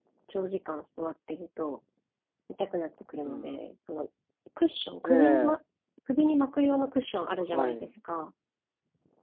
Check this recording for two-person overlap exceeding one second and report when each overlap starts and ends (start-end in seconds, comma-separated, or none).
none